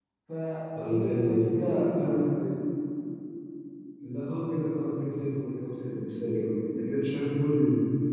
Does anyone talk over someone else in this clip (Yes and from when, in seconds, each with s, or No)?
Yes, from 0.8 s